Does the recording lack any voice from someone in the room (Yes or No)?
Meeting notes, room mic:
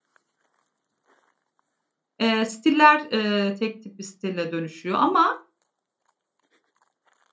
No